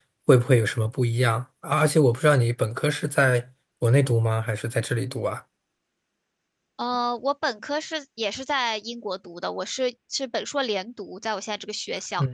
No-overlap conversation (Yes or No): Yes